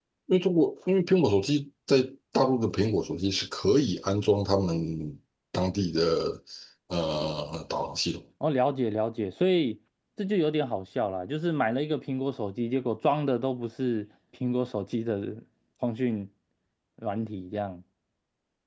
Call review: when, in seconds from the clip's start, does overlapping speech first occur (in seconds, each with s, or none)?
none